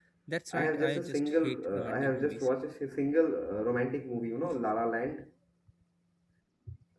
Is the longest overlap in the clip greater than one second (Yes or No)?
Yes